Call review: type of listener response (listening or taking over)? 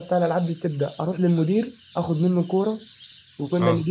listening